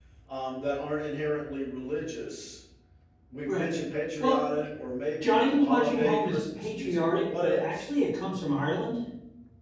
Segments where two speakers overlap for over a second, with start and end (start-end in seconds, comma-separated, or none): 5.2-7.9